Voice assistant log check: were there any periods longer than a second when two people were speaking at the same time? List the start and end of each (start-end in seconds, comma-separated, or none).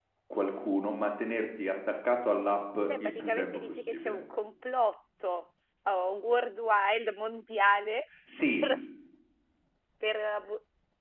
2.9-4.2